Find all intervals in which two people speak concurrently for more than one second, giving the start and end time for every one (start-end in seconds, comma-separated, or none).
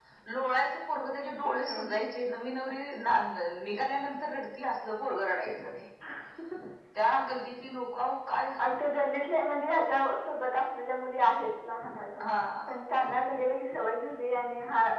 none